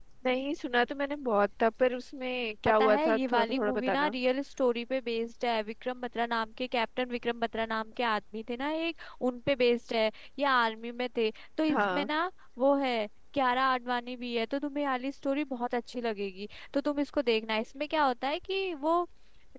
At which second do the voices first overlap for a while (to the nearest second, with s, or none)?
3 s